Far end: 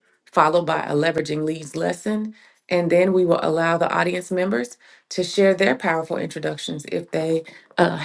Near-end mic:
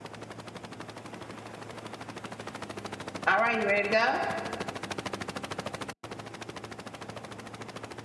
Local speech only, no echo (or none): All right, you ready to go?